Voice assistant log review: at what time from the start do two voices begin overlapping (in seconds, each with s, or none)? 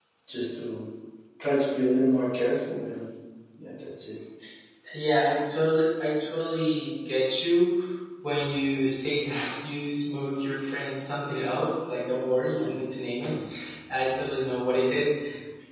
none